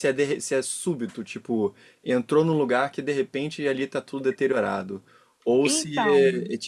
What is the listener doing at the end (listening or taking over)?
listening